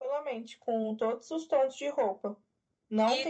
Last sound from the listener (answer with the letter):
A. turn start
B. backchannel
A